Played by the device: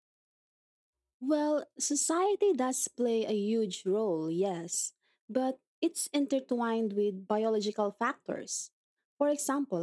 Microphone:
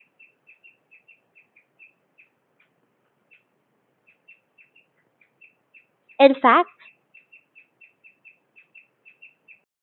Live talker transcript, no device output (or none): In fact,